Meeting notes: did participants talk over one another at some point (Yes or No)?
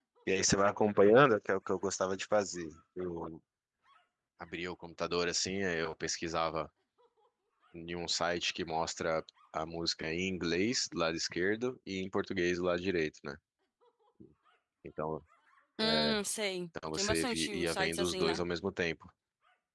Yes